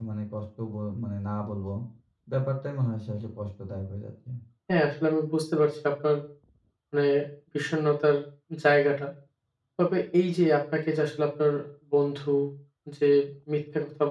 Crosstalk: none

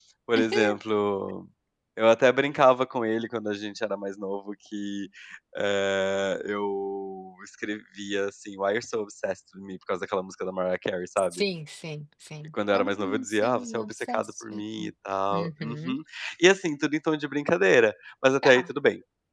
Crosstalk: present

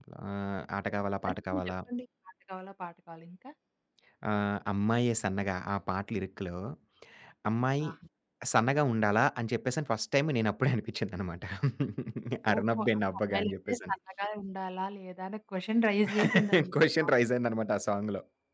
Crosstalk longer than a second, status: present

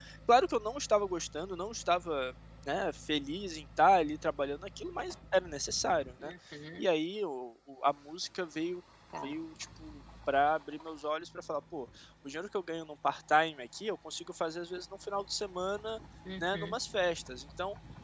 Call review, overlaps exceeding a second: none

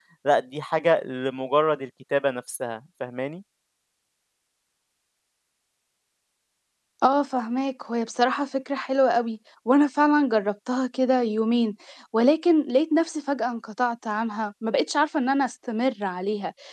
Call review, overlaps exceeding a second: none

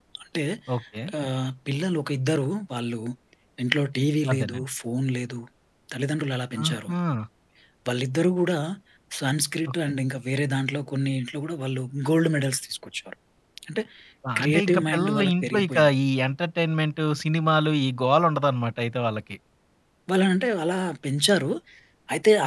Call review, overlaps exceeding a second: present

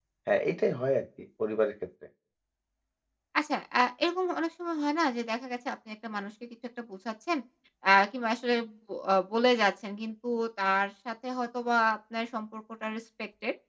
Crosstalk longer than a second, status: none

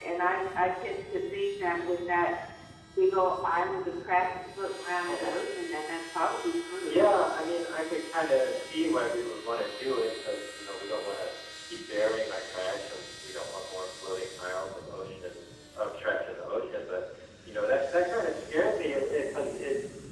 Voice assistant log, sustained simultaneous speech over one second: none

